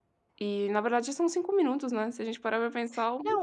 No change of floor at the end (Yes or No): No